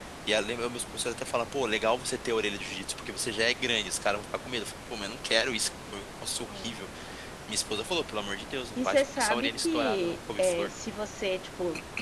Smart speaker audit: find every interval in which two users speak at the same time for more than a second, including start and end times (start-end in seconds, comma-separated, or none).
8.8-10.7